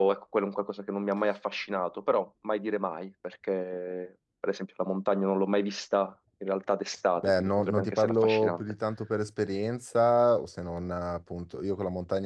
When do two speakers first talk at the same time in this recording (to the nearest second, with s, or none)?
7 s